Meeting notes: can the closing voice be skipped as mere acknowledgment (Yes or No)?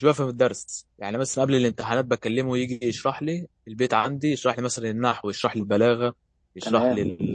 Yes